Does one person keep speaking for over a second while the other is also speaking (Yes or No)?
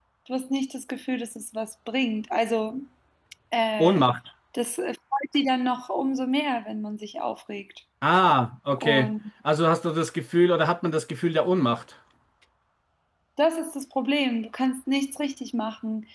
No